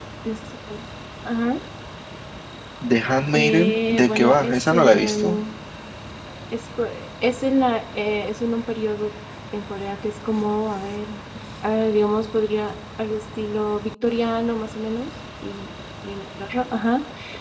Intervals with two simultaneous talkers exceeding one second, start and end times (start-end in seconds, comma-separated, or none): 3.3-5.4